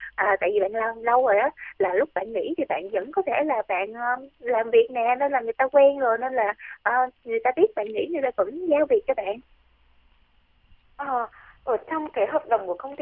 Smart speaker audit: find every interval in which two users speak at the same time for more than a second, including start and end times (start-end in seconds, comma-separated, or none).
none